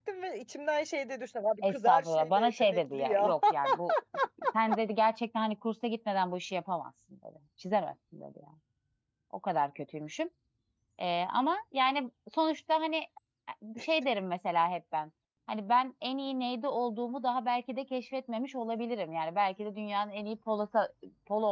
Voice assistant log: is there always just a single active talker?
No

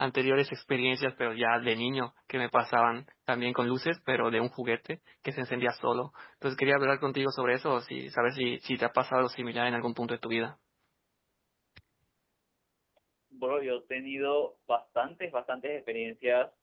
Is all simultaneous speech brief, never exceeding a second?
Yes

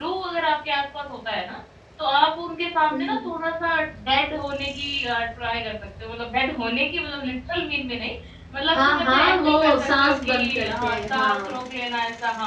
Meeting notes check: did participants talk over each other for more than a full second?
Yes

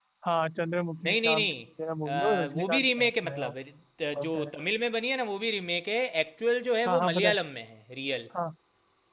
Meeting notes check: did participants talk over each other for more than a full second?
Yes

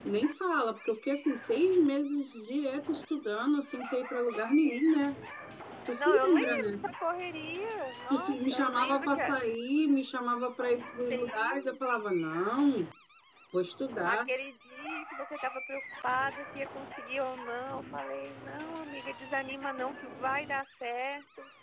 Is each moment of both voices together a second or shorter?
No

